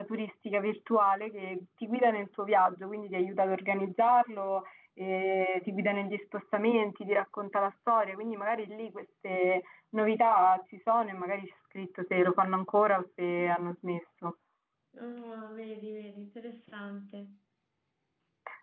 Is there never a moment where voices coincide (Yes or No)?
Yes